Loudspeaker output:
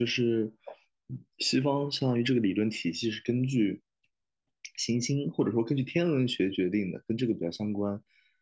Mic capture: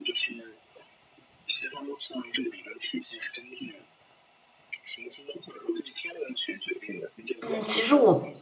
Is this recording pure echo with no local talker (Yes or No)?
No